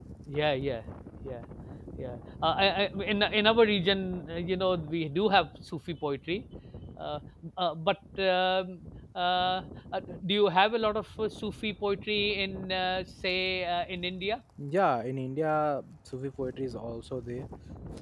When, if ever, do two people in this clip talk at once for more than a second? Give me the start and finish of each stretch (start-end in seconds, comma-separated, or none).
none